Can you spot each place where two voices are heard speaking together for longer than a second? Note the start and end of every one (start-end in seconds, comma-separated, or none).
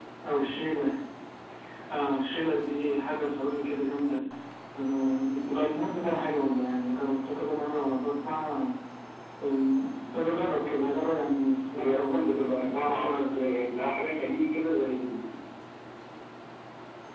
11.6-13.4